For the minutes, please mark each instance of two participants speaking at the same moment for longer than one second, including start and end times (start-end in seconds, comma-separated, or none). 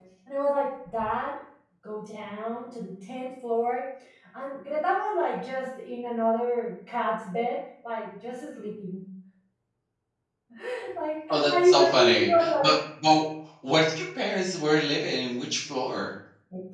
11.3-12.7